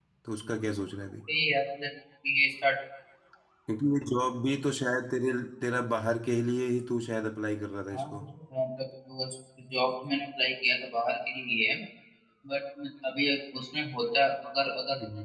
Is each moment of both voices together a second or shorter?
Yes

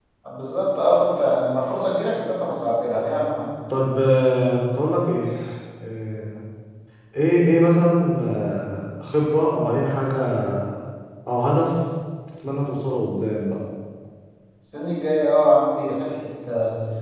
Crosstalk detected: No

